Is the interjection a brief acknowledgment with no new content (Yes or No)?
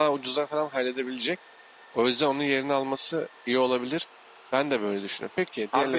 No